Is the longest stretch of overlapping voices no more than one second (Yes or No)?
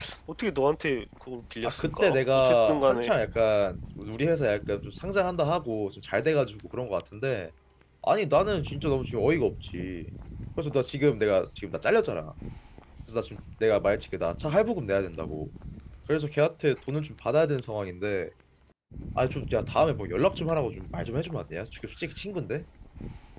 No